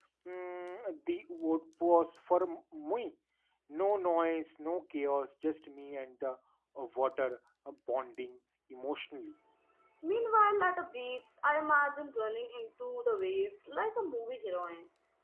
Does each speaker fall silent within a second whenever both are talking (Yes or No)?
Yes